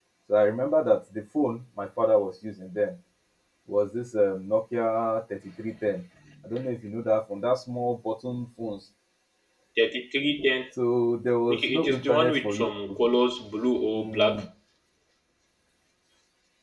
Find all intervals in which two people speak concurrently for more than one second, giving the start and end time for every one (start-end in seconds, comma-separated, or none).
11.5-13.0